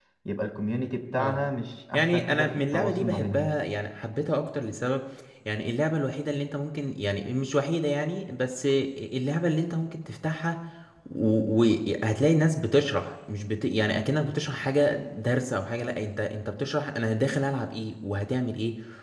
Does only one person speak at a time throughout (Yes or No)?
No